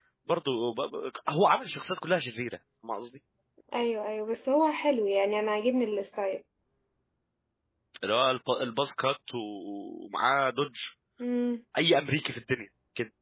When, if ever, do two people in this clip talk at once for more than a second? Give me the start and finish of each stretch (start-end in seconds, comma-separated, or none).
none